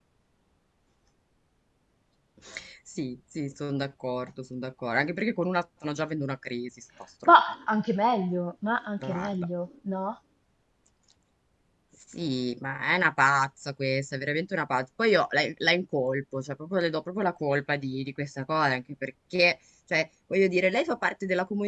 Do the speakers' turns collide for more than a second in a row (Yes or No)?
No